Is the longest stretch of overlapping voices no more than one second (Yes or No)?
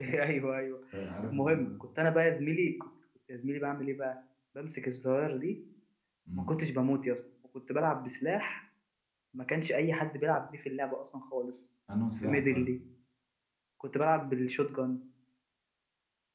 Yes